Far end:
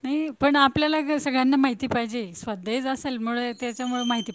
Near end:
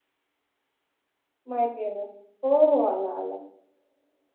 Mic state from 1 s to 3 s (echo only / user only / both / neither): user only